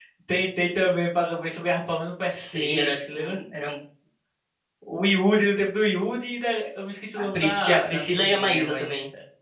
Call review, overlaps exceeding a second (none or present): present